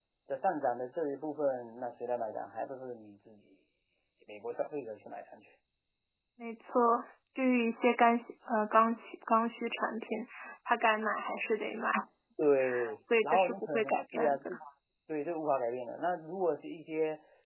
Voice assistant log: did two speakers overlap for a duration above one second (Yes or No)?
Yes